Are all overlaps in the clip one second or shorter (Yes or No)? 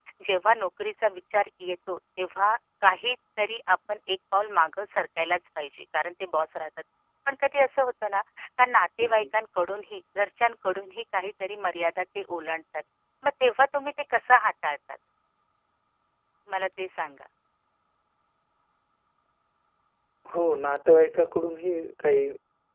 Yes